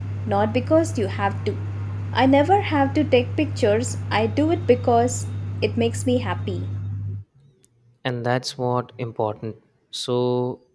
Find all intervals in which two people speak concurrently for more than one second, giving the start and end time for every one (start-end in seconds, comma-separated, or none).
none